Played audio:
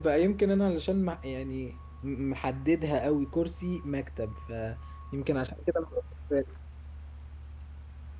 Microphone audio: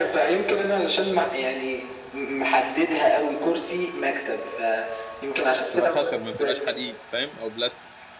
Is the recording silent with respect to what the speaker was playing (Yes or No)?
No